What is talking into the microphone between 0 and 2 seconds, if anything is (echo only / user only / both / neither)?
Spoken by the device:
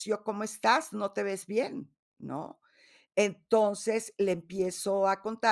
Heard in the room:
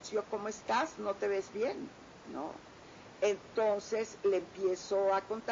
echo only